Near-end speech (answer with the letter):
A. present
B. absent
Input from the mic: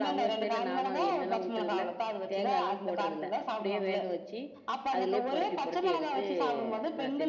A